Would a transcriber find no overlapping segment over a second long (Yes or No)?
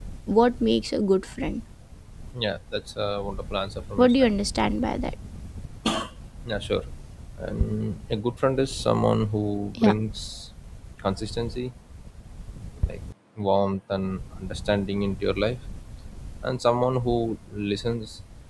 Yes